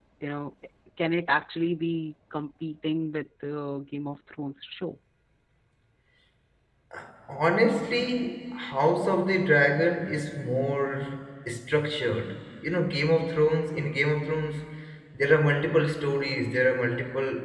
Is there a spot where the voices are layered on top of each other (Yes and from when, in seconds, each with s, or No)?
No